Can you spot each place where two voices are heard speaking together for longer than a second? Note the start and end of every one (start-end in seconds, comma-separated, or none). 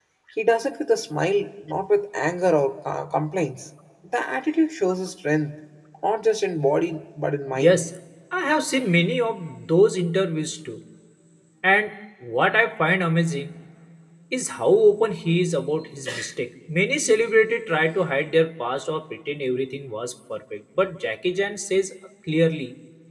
none